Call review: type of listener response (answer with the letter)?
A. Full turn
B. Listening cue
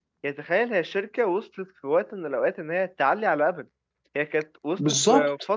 B